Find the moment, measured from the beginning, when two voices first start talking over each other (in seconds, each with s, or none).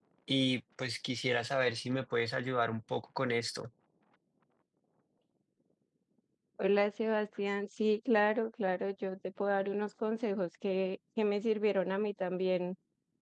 none